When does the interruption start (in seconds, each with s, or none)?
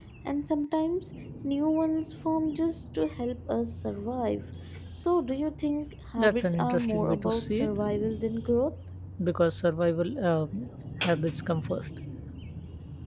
6.2 s